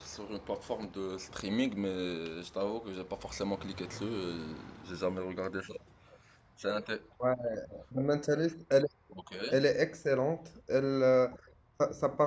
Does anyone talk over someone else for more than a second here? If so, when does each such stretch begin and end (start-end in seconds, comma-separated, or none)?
none